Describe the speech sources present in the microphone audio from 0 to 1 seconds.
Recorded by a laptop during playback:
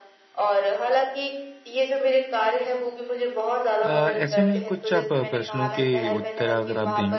echo only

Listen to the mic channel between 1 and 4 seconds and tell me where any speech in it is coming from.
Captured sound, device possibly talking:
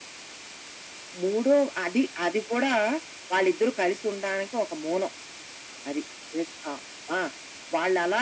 echo only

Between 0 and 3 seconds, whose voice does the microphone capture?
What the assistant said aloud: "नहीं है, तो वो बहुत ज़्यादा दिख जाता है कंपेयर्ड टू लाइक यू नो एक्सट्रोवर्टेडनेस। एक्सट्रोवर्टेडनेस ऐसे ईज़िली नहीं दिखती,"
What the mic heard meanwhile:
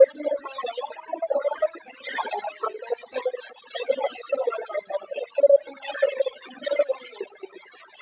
echo only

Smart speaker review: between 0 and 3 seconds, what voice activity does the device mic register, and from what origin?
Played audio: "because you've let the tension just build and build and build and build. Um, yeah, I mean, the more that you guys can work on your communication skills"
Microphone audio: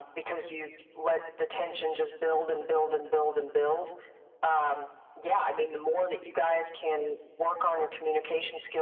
echo only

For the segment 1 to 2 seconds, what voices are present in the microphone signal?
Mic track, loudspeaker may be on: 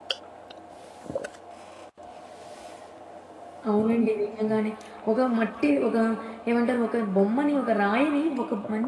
neither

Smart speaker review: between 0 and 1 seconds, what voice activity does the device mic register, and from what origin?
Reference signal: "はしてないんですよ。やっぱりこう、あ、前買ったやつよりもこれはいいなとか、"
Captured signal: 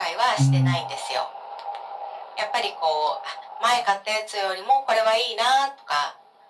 both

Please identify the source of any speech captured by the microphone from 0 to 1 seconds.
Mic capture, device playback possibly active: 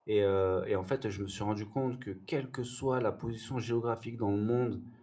user only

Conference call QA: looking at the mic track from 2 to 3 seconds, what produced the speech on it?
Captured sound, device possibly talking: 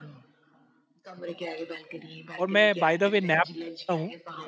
both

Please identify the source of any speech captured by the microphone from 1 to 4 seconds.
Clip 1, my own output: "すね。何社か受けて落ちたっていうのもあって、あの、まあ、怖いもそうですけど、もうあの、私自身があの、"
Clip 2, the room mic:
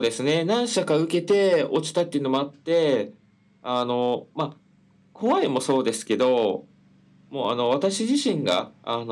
echo only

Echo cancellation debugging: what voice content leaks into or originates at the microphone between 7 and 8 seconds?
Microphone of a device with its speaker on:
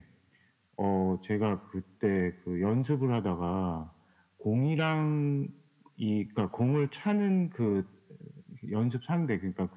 echo only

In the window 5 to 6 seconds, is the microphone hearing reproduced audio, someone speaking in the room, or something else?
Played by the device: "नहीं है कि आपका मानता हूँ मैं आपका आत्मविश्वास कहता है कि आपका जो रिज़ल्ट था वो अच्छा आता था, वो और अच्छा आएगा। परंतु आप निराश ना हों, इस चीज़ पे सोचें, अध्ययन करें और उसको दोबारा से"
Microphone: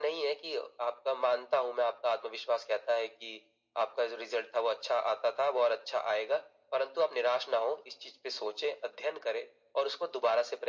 echo only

